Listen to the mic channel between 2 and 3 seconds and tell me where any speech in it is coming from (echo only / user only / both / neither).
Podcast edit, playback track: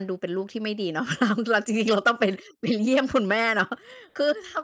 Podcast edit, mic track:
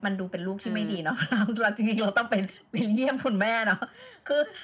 echo only